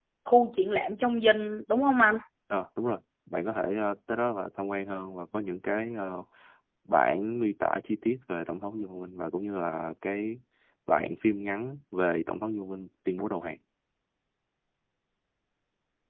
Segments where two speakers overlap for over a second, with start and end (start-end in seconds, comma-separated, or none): none